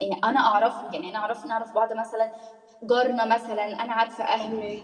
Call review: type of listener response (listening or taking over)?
listening